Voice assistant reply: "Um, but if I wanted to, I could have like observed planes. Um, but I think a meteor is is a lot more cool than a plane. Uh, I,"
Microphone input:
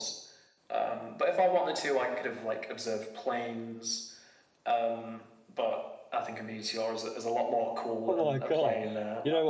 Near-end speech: present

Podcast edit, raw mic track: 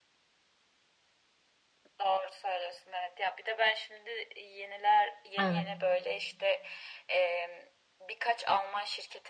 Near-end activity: present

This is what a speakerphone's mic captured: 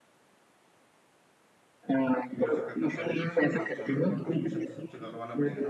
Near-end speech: present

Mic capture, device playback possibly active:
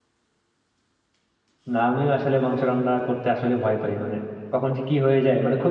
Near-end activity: present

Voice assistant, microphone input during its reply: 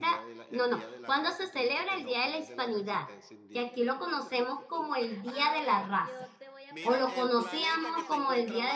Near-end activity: present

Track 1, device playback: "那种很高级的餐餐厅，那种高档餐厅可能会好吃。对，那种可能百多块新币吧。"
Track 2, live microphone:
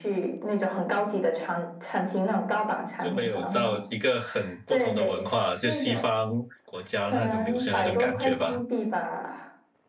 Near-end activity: present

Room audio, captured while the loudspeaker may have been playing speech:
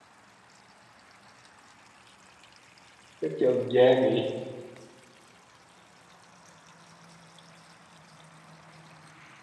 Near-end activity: present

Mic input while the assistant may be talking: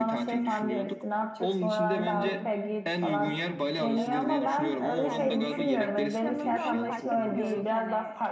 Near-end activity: present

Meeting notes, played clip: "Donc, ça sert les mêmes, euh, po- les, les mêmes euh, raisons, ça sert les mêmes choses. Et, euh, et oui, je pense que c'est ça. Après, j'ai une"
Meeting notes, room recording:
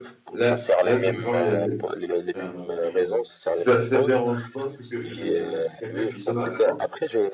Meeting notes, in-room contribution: present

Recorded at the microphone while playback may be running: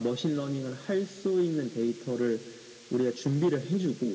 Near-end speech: none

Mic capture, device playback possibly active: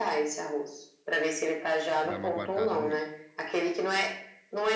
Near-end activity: present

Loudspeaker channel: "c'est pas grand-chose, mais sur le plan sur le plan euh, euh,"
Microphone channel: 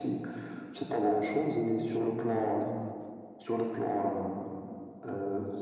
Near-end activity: present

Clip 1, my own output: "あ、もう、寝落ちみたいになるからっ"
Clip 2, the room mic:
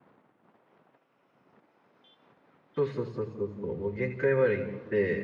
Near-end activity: present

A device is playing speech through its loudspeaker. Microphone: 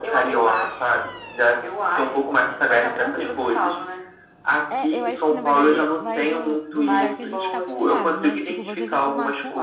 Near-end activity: present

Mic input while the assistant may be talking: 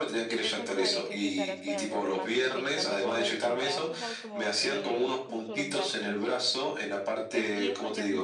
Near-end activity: present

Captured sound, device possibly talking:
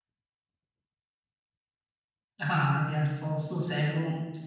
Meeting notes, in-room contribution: present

